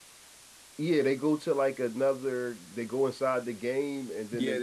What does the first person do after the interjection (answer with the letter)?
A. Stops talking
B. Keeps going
A